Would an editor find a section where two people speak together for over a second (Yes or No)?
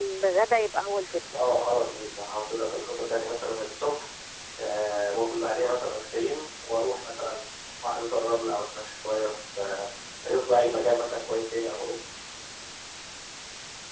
No